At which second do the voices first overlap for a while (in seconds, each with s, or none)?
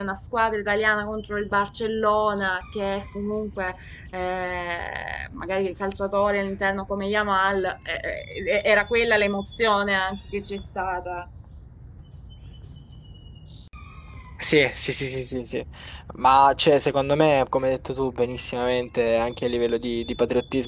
none